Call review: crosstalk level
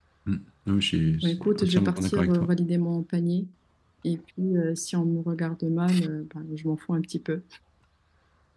present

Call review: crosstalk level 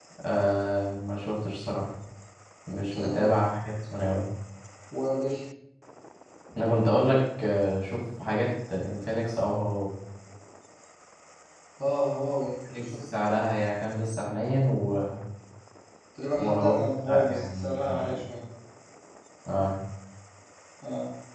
present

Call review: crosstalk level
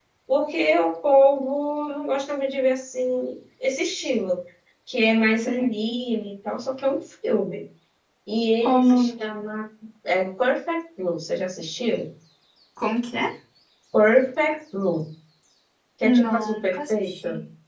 present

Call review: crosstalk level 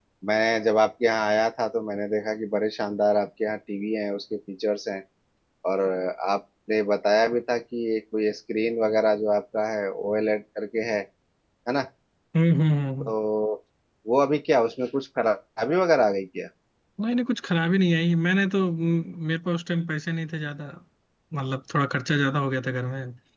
none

